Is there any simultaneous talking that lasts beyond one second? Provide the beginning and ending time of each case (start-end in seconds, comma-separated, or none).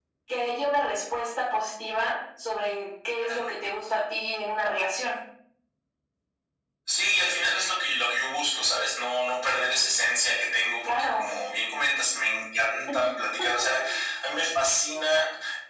none